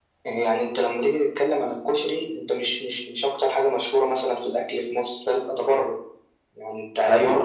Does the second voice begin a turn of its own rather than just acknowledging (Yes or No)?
No